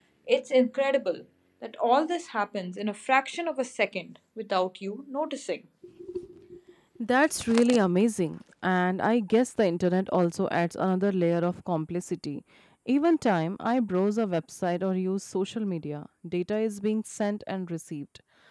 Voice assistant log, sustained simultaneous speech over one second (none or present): none